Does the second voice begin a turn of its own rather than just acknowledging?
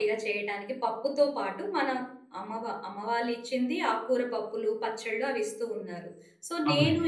No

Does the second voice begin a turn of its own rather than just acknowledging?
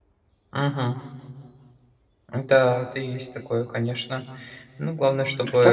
Yes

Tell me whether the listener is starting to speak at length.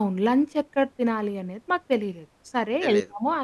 No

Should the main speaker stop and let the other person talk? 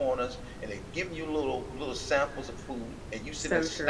No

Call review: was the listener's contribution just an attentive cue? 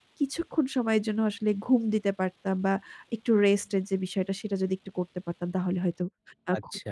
No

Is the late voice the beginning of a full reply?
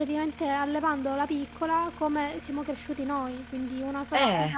No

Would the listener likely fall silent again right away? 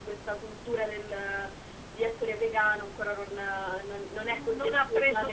No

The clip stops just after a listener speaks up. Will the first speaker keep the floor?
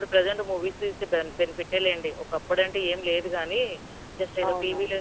Yes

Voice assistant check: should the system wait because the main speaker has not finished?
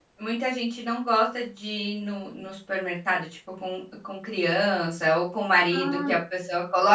Yes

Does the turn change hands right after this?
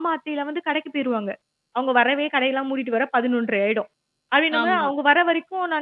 No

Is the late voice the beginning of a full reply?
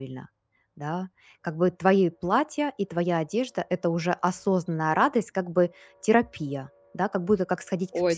Yes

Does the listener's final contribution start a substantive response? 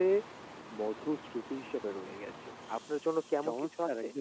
Yes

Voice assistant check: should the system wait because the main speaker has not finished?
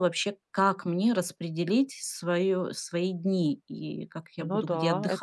No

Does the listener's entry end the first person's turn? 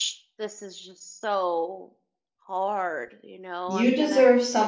Yes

